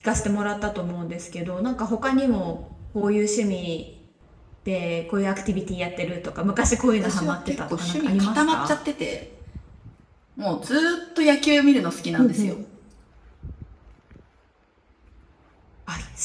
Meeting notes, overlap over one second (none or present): present